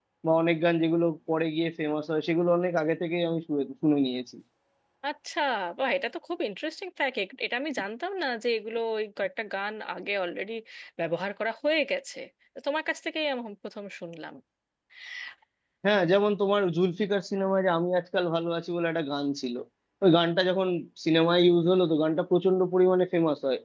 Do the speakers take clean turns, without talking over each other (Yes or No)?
Yes